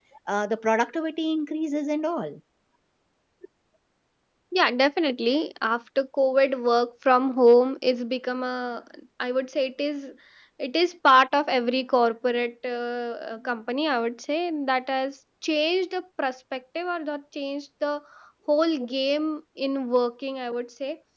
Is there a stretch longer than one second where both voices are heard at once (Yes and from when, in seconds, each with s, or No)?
No